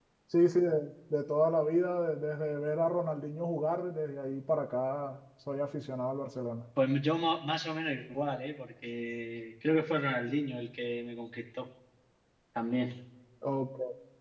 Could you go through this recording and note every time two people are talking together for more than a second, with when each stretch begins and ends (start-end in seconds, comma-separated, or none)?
none